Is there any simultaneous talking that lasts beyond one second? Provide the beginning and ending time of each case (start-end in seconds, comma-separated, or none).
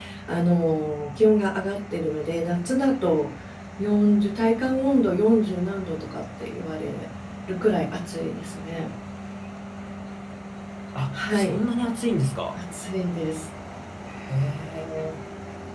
none